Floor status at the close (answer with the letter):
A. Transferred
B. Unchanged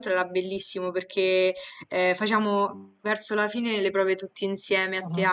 B